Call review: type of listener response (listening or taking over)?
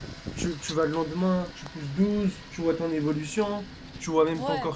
listening